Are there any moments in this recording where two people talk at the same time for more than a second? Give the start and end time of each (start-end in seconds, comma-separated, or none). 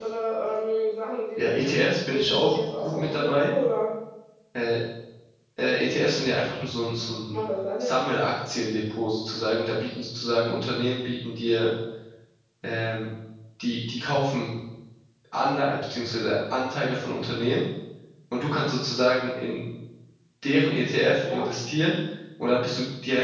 1.4-3.5